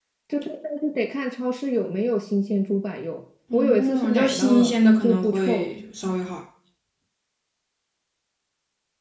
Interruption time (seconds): 3.5 s

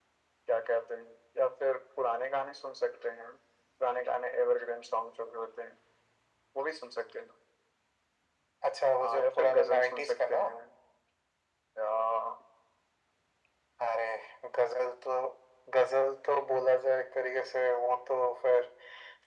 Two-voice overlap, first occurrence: 9.0 s

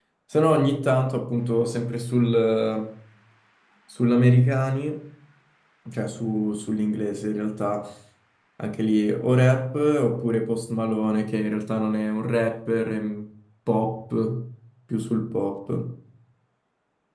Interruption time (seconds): none

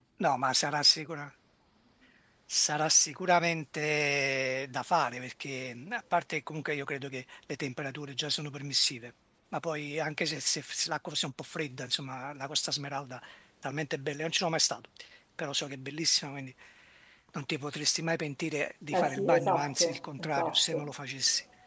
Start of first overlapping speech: 18.9 s

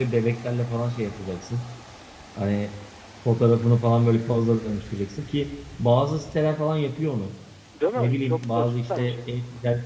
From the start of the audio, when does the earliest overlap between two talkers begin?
8.0 s

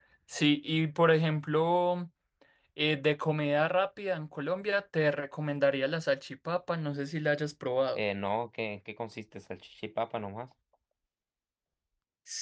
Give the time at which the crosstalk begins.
none

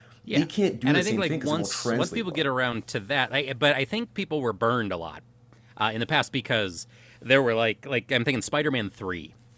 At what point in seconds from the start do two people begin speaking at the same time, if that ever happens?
0.8 s

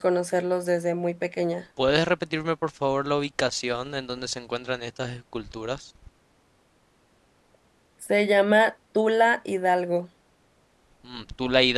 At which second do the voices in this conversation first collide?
none

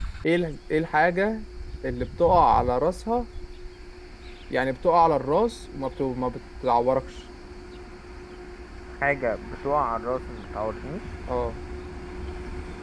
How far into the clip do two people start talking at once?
none

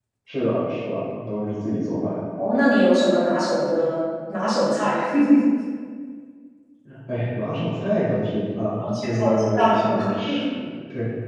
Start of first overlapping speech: 8.8 s

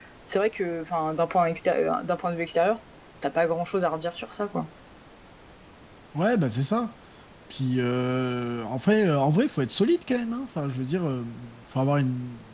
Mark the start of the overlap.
none

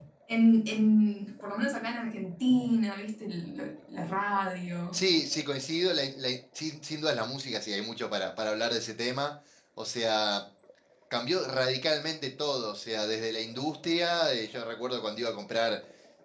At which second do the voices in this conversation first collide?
none

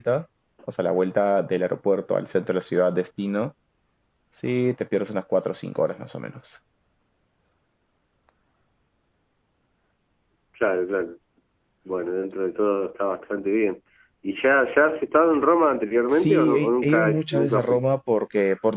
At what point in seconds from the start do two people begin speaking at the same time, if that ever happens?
16.1 s

